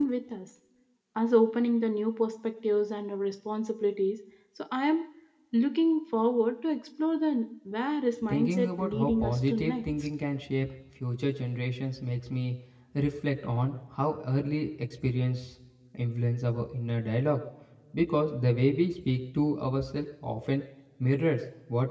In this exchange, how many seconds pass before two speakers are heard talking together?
8 s

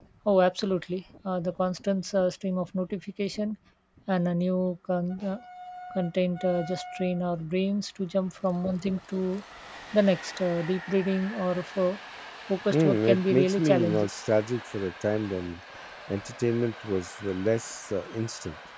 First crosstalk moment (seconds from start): 13 s

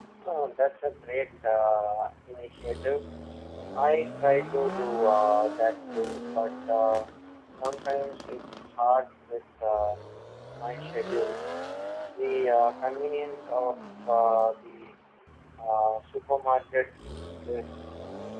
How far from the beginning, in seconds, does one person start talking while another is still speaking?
none

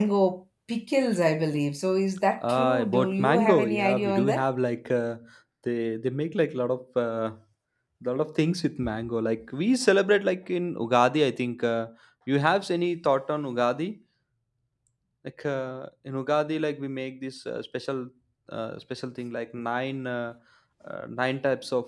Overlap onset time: 2 s

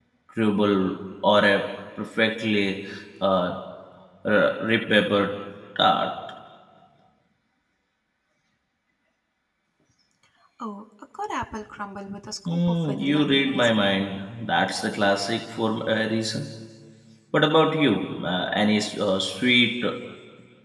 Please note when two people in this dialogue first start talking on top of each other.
12 s

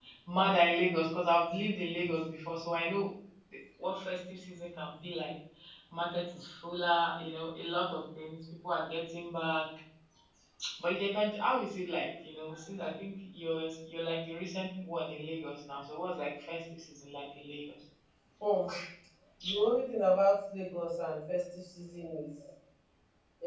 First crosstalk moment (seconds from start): none

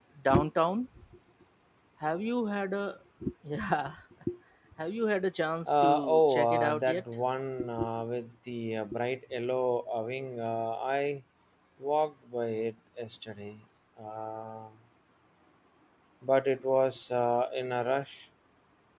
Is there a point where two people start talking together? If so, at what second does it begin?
6 s

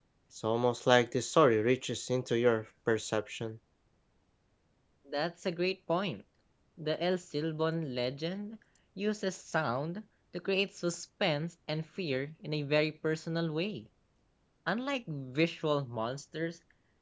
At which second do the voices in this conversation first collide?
none

